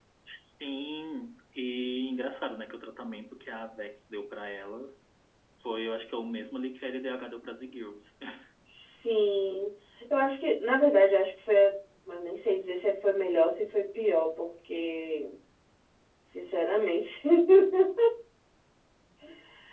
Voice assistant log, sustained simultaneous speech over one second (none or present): none